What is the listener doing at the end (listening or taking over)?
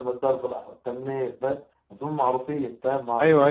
taking over